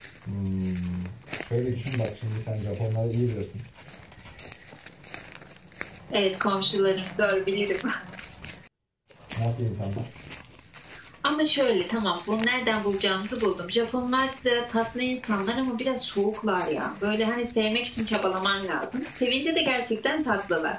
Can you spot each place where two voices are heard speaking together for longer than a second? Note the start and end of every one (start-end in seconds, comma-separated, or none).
none